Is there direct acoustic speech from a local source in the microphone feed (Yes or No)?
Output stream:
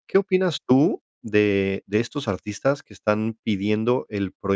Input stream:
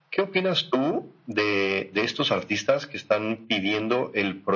No